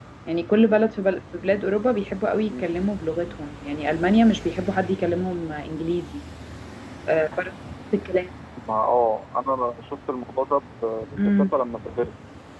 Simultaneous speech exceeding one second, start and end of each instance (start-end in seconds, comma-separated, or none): none